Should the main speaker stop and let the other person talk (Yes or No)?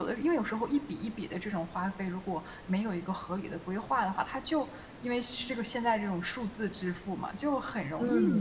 No